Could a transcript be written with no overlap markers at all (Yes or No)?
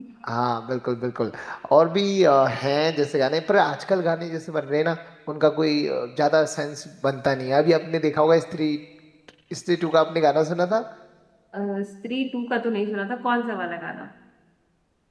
Yes